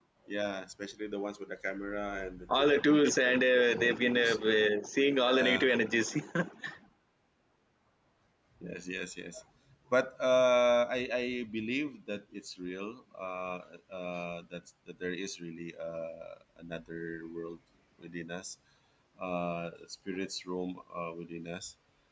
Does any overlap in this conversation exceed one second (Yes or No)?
Yes